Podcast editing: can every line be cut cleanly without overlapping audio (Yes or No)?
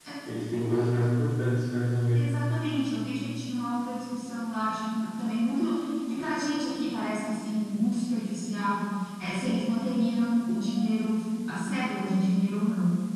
Yes